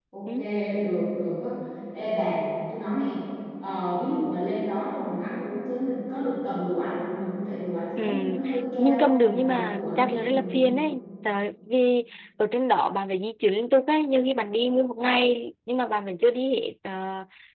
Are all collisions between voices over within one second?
No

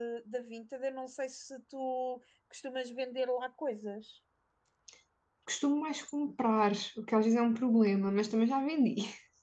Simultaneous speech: No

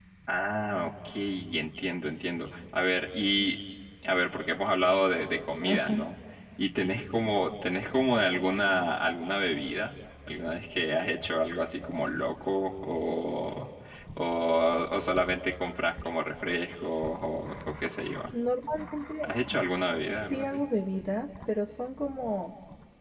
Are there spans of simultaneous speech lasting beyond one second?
No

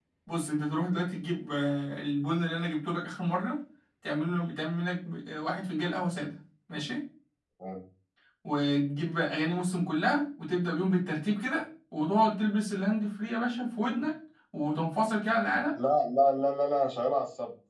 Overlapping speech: No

